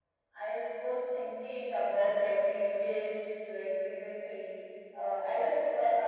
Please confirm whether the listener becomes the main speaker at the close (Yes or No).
No